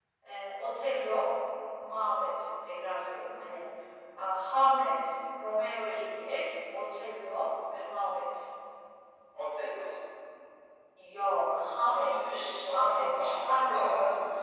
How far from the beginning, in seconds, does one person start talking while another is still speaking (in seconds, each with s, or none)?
11.9 s